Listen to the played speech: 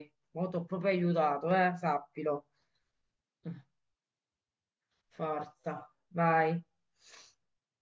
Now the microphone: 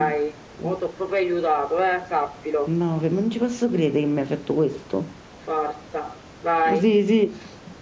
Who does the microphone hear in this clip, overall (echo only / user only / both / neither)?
both